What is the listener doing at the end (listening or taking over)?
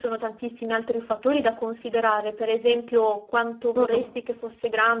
listening